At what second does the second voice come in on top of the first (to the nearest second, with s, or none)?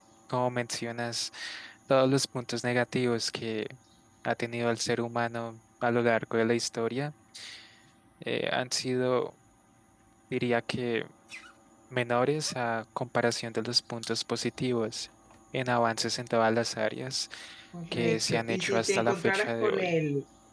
18 s